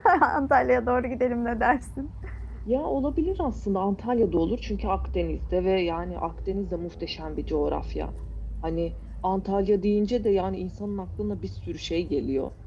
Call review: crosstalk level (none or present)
none